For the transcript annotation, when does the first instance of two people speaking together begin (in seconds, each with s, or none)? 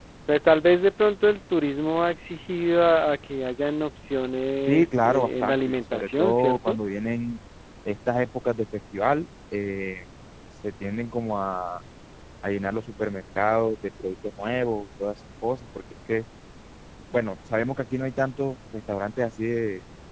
4.7 s